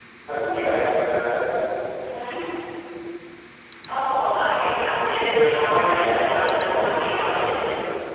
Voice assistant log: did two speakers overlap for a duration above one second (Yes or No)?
Yes